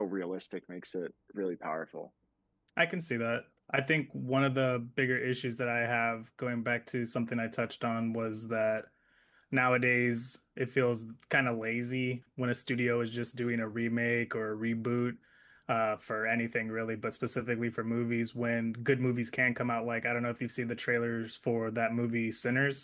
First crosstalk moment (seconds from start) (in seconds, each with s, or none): none